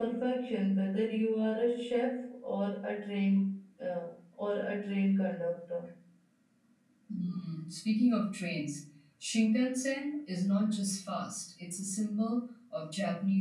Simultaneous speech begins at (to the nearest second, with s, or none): none